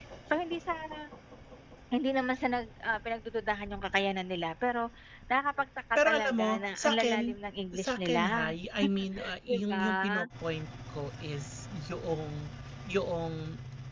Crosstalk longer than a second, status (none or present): present